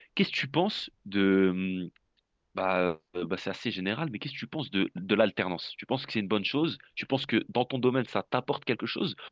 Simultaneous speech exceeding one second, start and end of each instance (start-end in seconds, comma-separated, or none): none